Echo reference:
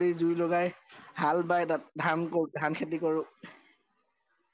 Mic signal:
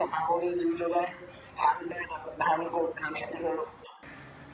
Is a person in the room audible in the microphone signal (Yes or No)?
No